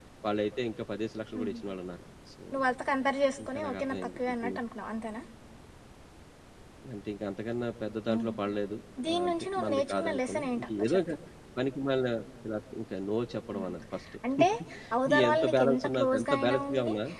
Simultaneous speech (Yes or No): Yes